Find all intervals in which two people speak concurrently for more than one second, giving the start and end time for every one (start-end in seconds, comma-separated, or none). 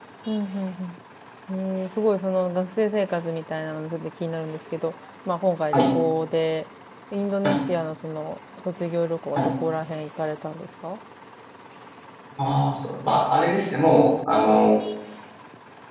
none